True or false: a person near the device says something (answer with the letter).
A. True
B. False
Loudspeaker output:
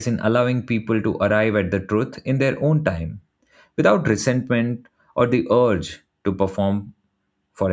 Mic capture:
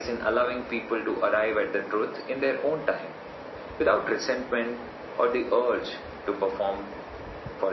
B